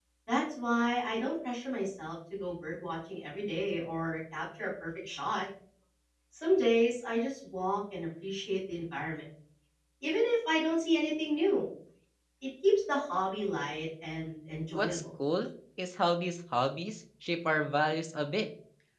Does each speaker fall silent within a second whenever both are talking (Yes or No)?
Yes